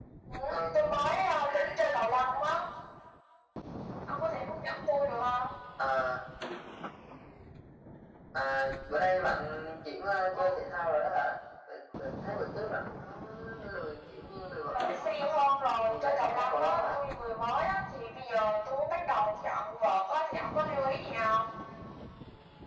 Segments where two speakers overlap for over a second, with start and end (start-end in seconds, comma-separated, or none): 15.8-17.0